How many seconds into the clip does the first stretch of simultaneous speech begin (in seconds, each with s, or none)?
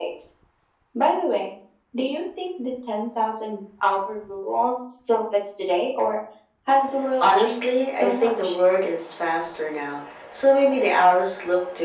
7.2 s